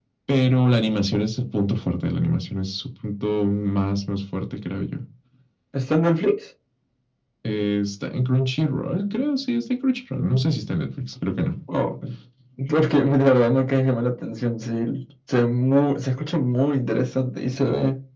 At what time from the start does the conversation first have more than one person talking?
none

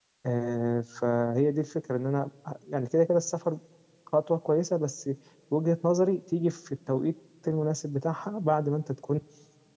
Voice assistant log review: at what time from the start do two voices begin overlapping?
none

